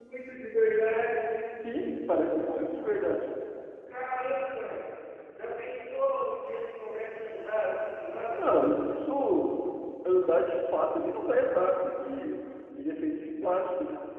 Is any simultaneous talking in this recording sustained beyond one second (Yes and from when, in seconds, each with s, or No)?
No